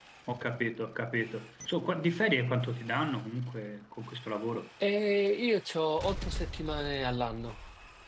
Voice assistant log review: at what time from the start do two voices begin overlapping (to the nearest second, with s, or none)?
none